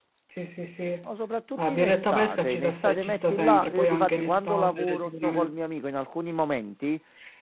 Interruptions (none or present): present